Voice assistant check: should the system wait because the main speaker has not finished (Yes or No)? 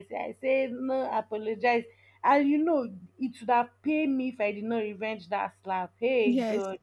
Yes